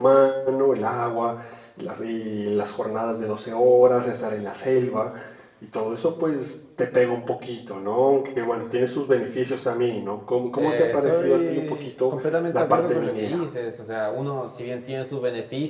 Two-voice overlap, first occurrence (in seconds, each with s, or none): 10.6 s